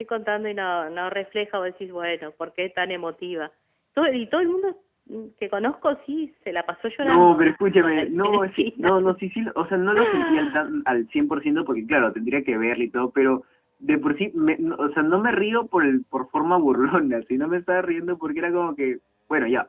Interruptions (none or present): present